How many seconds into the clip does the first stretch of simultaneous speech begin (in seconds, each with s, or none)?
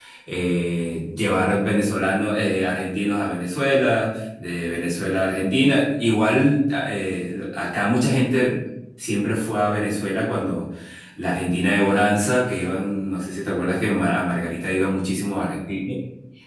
none